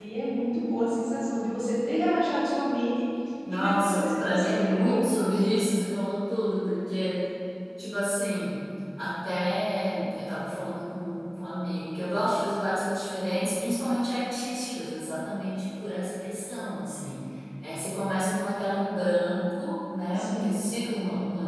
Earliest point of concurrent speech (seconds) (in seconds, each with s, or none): 3.5 s